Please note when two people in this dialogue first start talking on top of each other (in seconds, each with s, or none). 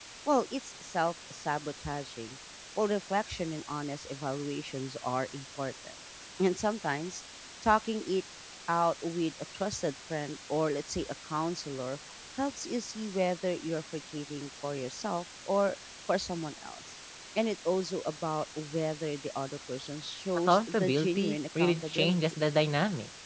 20.5 s